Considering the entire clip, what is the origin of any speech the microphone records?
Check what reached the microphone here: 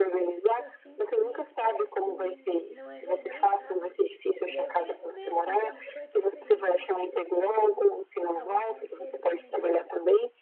both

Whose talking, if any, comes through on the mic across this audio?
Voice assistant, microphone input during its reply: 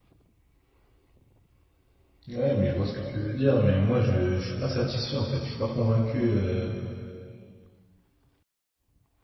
user only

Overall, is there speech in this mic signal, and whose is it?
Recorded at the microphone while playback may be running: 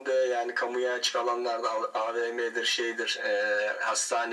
echo only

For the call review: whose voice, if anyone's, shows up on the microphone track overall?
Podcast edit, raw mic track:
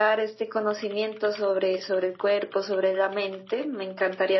echo only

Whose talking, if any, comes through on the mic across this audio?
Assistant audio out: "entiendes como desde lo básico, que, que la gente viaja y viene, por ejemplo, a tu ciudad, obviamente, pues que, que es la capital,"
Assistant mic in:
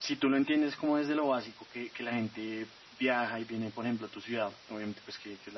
echo only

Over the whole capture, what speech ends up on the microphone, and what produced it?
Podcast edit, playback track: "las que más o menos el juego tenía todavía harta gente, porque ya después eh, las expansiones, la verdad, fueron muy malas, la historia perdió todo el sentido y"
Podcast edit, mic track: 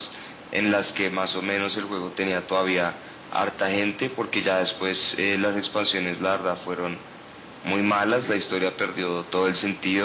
echo only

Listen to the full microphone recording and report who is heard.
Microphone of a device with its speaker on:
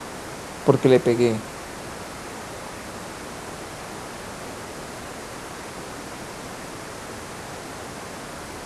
user only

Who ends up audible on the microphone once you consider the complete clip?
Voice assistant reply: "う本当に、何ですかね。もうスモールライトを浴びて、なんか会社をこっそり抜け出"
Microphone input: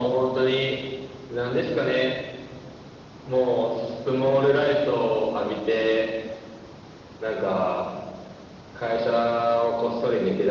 echo only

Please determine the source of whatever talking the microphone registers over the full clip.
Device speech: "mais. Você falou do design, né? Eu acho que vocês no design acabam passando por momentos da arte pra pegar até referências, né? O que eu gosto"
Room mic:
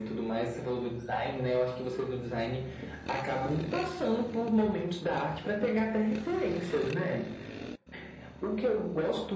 echo only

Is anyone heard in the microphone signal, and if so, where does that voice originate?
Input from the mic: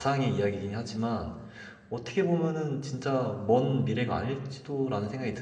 user only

